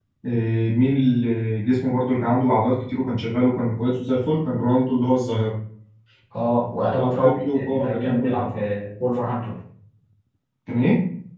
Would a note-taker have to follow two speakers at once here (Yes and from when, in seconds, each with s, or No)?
Yes, from 6.8 s